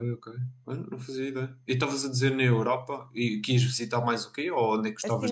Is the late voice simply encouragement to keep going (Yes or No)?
No